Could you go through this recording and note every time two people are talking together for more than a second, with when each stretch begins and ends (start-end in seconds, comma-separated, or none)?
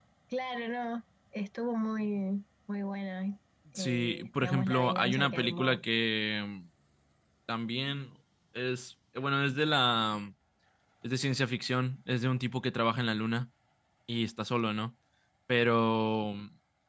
3.8-5.8